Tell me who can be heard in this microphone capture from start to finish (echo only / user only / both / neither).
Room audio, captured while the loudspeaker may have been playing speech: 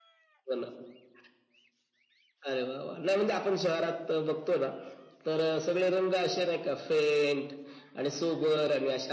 echo only